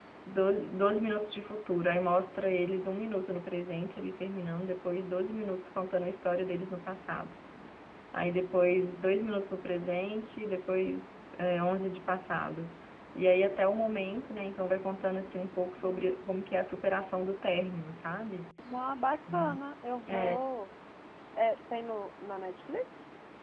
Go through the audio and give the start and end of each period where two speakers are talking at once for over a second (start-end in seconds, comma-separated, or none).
none